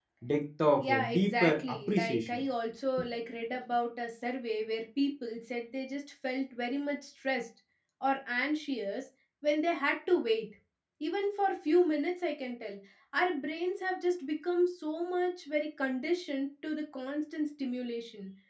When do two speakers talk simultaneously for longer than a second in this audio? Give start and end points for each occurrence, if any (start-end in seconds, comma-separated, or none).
0.8-2.4